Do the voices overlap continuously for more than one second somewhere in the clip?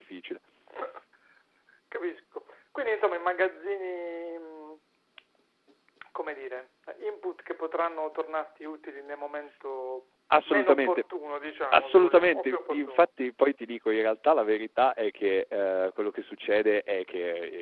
Yes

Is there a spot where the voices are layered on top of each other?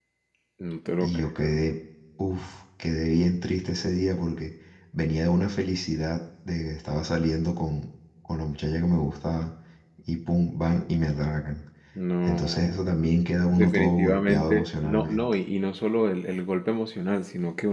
Yes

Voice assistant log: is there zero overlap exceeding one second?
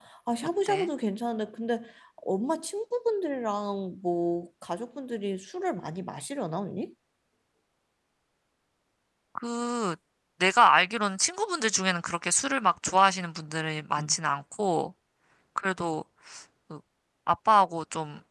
Yes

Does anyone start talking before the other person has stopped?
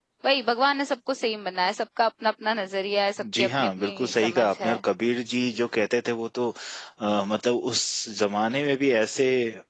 Yes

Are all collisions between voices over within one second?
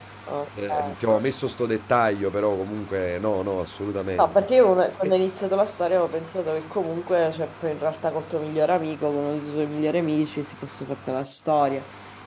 Yes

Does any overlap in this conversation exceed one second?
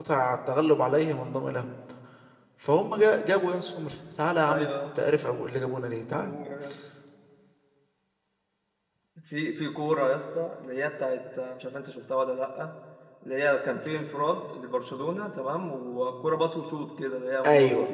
No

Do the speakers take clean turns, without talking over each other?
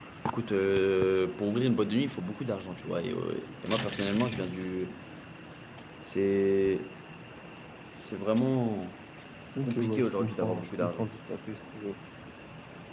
No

